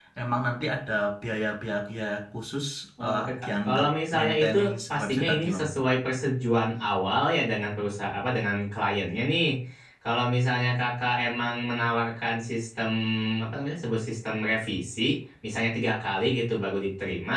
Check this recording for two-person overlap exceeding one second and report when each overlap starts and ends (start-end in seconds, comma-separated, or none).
3.0-5.7